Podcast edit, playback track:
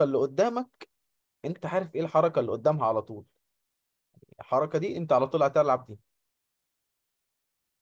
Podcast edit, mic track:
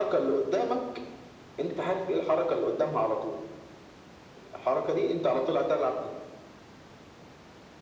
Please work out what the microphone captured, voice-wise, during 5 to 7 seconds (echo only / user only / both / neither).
echo only